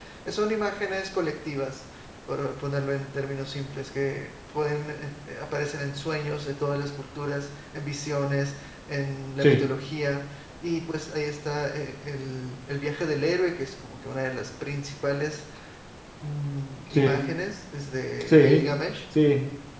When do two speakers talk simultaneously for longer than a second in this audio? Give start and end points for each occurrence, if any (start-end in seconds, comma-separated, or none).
none